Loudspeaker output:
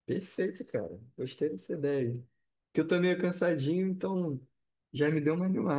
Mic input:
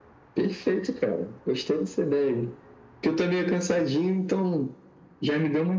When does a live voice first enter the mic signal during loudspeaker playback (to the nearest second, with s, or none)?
none